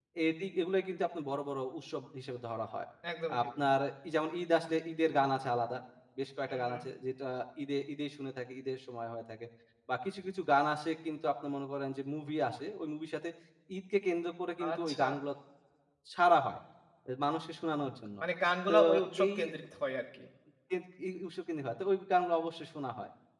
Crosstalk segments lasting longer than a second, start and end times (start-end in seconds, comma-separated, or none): none